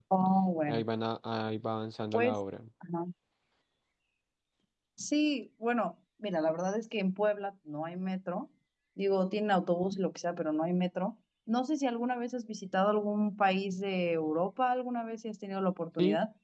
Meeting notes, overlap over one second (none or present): none